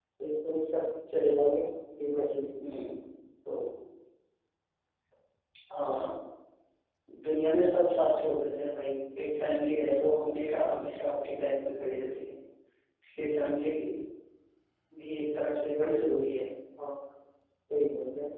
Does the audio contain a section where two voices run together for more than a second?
No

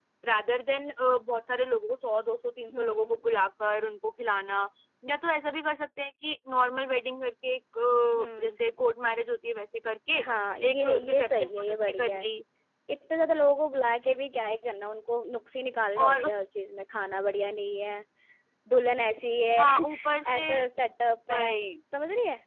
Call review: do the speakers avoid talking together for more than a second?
No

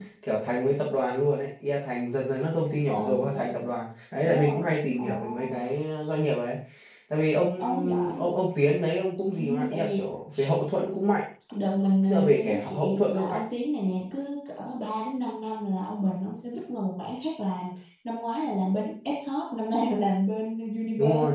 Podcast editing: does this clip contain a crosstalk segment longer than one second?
Yes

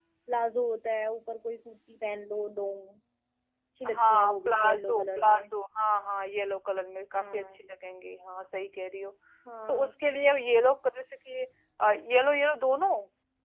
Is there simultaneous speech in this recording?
Yes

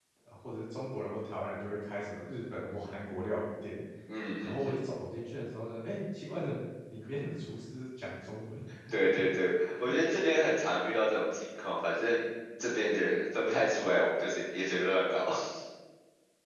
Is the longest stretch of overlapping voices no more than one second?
Yes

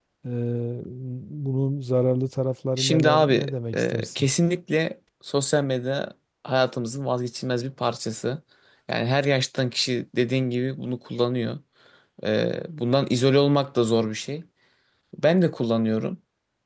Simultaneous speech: Yes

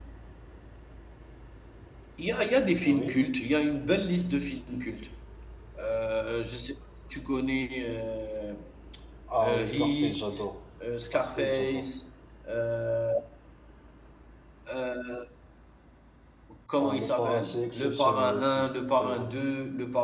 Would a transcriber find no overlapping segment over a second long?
No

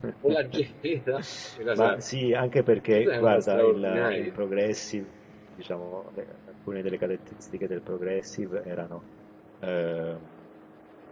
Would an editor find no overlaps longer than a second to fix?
No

